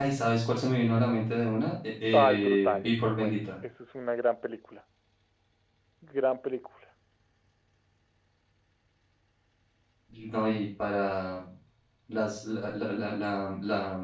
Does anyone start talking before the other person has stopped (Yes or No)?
Yes